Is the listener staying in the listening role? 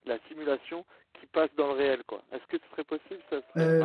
No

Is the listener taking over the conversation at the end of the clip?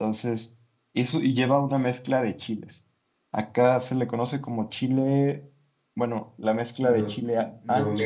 Yes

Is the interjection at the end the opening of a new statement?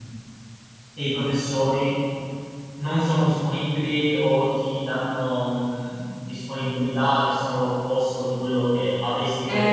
Yes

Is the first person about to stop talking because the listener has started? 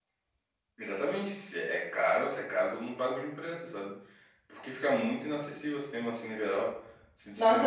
Yes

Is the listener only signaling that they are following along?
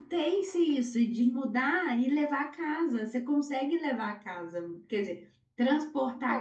No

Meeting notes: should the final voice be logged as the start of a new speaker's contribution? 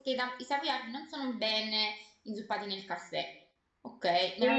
Yes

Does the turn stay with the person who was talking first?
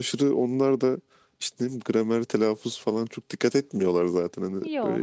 Yes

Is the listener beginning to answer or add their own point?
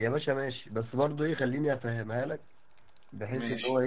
No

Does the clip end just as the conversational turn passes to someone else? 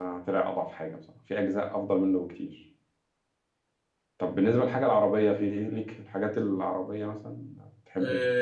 Yes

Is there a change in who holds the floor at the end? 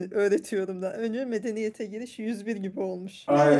Yes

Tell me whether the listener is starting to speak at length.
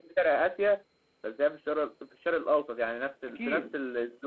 No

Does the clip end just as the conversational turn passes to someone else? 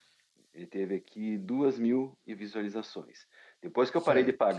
No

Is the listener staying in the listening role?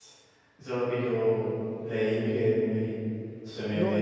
No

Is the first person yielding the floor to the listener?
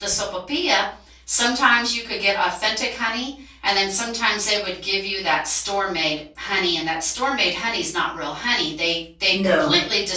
No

